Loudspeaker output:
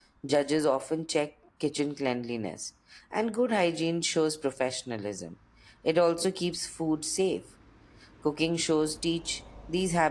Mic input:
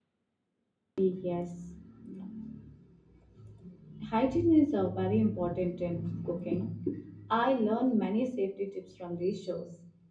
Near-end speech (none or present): present